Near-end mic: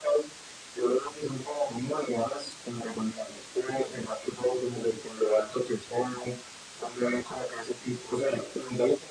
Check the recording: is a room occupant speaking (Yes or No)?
No